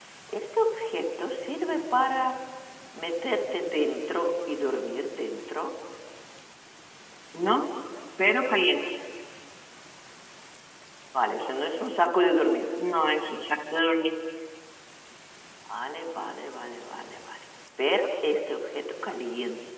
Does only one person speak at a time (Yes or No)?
Yes